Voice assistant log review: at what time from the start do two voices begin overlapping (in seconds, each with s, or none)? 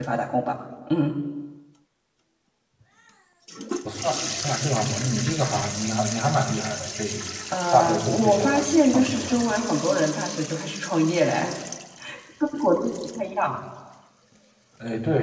7.7 s